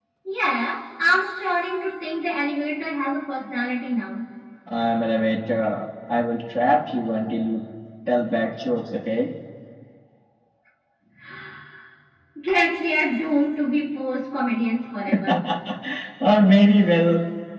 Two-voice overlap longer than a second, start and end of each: none

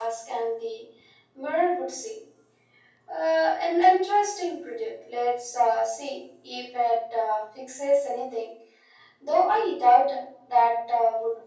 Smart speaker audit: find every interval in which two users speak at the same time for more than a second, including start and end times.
none

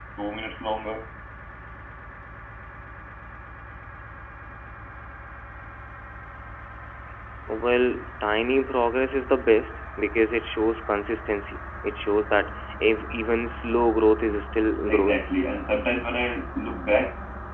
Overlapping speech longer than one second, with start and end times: none

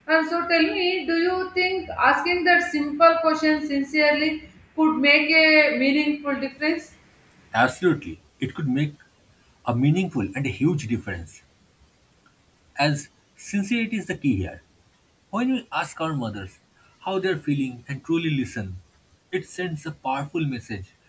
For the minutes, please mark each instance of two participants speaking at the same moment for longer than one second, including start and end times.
none

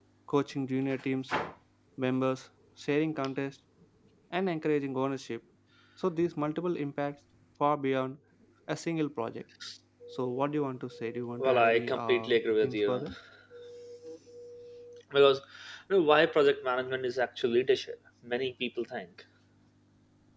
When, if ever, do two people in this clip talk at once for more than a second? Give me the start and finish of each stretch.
11.4-13.0

